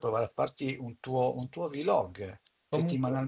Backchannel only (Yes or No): Yes